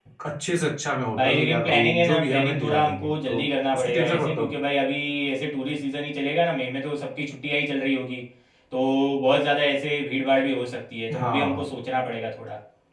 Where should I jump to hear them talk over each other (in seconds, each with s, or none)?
1.1 s